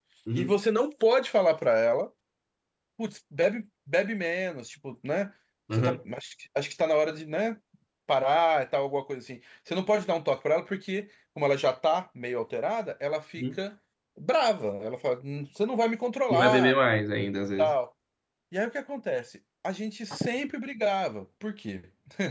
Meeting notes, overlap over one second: none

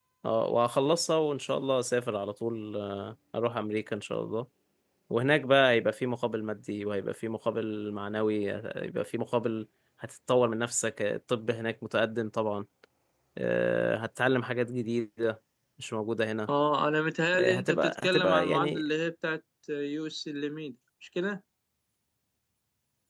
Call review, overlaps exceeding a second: present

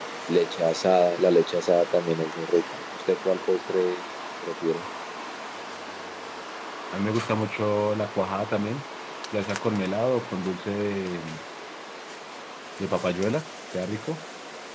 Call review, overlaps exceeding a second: none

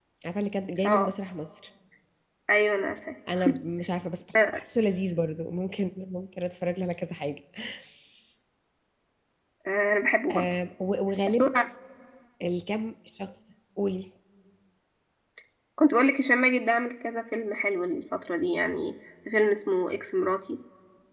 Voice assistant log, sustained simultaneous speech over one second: none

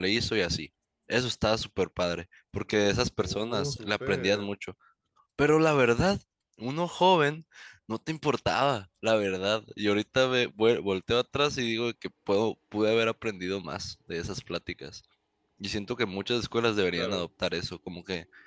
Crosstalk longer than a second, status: present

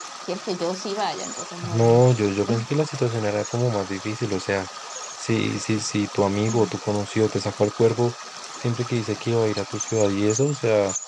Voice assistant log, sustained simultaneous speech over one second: none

